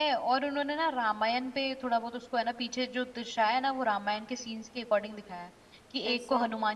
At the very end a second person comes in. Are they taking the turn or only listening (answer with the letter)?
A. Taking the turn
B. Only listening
B